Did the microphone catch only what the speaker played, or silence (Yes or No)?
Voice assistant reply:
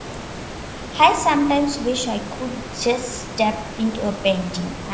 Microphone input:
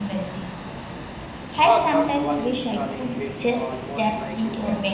No